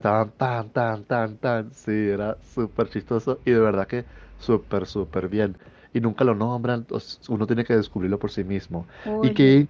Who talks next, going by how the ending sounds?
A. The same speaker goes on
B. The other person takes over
A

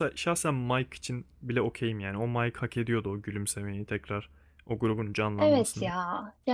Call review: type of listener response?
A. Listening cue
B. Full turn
B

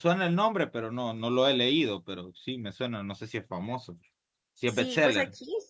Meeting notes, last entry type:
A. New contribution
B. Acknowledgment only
A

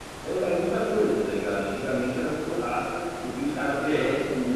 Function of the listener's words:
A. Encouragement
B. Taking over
A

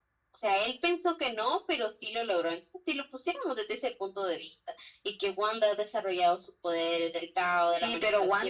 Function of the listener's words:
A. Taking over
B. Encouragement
A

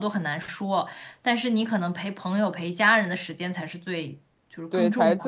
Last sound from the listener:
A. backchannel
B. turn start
B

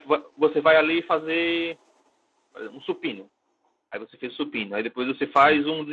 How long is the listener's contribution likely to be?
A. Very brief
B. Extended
A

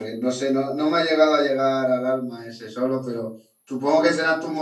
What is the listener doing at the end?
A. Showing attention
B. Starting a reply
A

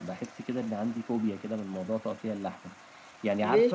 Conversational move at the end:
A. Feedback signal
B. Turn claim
A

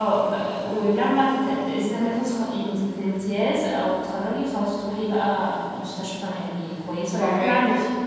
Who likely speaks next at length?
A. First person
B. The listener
A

